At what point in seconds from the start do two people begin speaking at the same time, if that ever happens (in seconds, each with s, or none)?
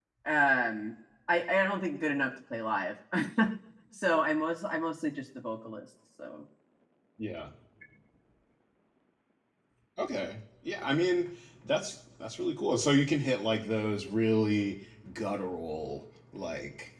none